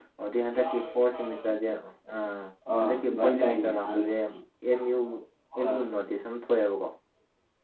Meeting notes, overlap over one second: present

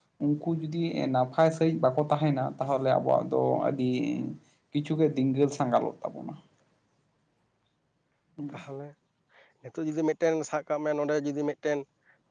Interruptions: none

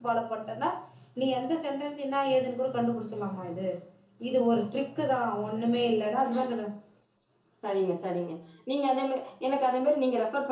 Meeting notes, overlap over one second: none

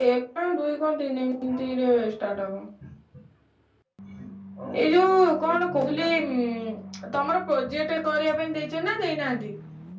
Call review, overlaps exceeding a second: present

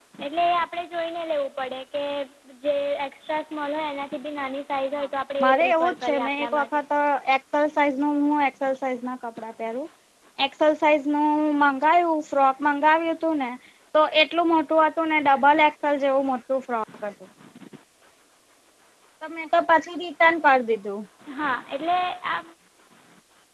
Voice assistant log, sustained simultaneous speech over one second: present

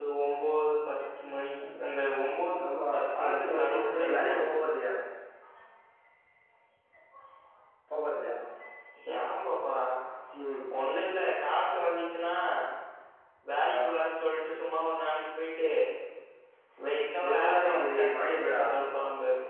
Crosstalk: present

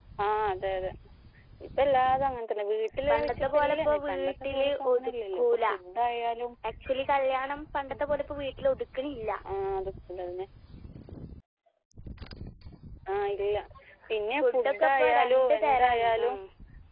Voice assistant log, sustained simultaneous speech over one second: present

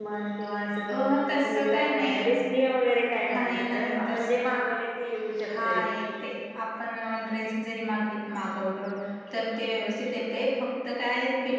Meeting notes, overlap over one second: present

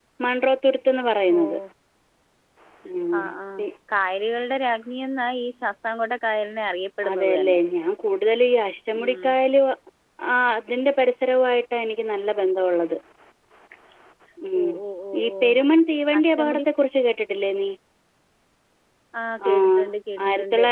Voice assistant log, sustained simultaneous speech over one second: none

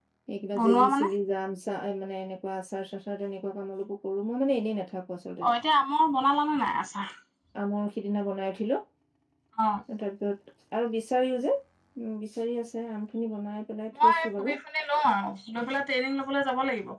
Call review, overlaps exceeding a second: none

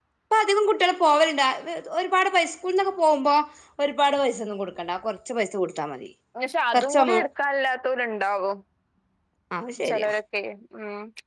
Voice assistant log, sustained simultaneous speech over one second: none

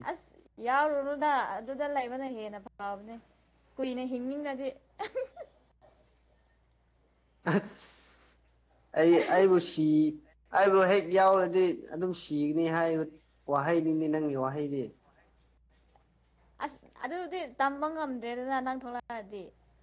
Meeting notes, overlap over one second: none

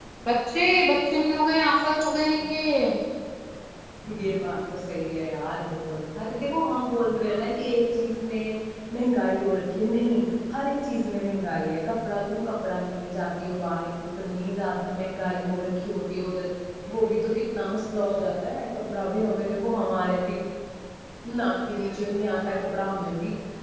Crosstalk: none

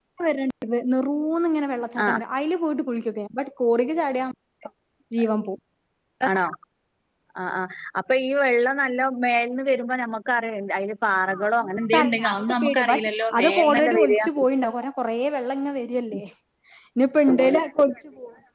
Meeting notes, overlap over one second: present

